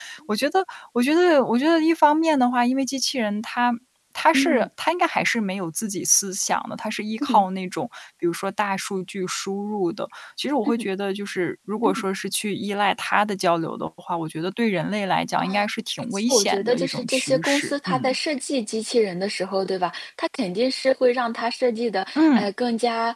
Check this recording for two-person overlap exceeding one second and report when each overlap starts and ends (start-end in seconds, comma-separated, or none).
16.1-18.1